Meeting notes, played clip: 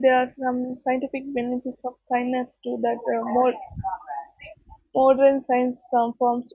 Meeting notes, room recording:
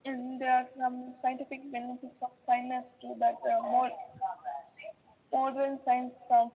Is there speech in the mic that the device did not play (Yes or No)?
No